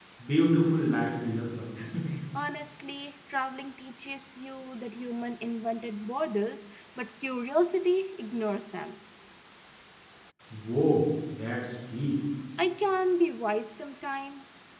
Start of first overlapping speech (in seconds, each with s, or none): none